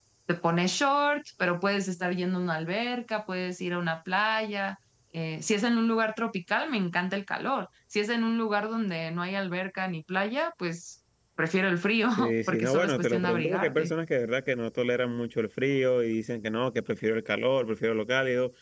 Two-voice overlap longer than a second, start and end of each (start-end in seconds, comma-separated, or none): 12.2-13.9